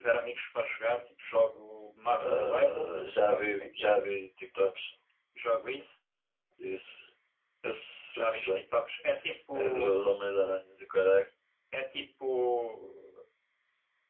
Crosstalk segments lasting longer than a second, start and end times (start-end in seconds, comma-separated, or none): 2.2-4.0